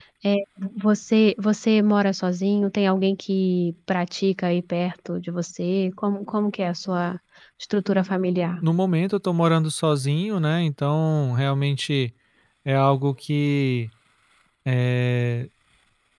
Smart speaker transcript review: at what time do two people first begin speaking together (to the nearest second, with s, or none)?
none